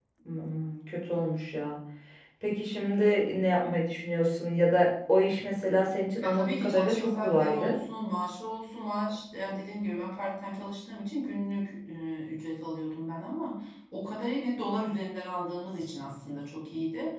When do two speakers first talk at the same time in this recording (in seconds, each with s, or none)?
6.2 s